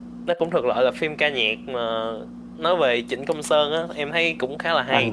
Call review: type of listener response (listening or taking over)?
taking over